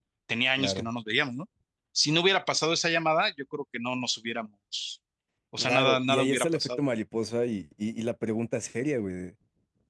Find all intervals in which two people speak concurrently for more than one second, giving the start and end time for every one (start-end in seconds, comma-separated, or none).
5.6-6.8